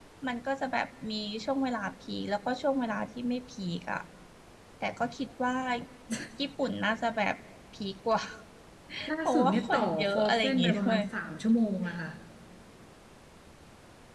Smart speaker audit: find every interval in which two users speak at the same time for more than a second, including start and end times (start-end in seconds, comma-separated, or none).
9.2-11.0